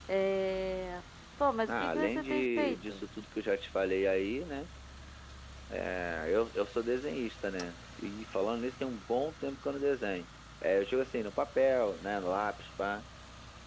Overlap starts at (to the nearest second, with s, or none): 2 s